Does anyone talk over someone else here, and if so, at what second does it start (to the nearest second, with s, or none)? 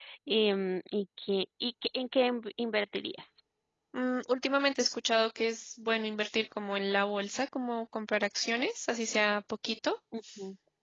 none